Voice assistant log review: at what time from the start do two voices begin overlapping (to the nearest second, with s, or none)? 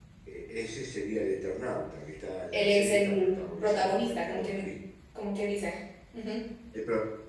3 s